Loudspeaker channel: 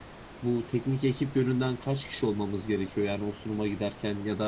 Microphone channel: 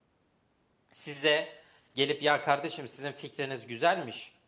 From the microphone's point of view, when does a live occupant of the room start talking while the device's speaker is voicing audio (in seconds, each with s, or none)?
0.9 s